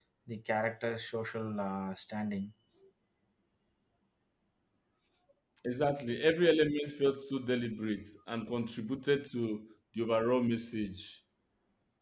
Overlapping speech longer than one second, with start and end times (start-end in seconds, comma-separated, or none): none